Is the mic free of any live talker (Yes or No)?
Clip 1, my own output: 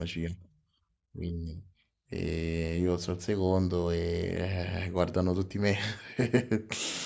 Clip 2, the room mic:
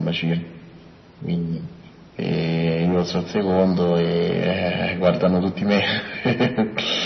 Yes